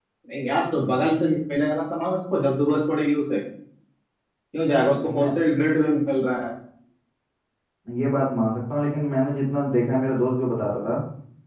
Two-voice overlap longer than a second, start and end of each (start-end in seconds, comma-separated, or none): none